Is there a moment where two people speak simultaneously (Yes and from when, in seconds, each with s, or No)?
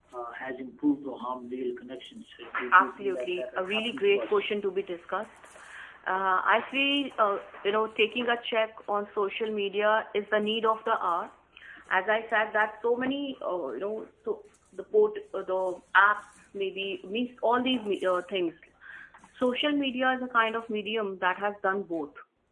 Yes, from 2.7 s